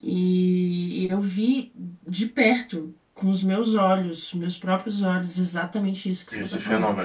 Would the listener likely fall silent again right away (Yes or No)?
Yes